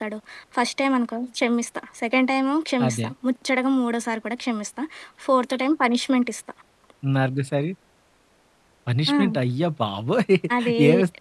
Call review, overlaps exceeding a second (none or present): none